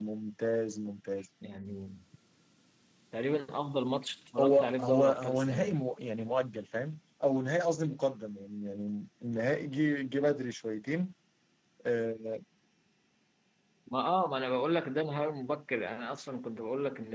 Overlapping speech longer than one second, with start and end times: 4.4-5.8

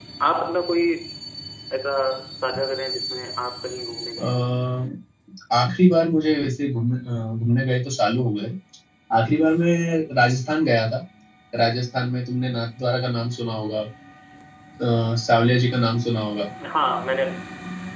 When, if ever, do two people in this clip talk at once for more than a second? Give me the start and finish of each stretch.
none

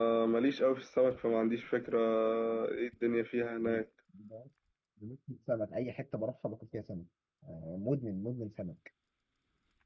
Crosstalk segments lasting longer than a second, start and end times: none

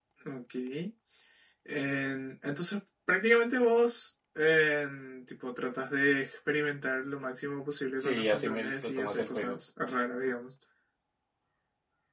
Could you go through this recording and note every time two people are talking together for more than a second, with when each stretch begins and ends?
8.0-9.6

